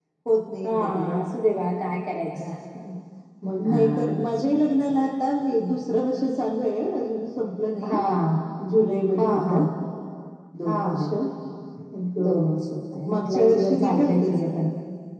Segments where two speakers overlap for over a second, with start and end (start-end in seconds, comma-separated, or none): 13.1-14.6